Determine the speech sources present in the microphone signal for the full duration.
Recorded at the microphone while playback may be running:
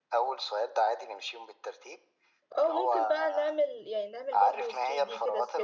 both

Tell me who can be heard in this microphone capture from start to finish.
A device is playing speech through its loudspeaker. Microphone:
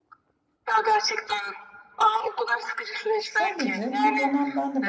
both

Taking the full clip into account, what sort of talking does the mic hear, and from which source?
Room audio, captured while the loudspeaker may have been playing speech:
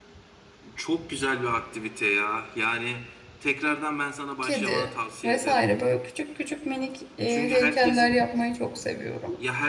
both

